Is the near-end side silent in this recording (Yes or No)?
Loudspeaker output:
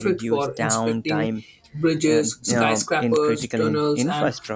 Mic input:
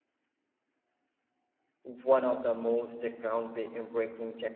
No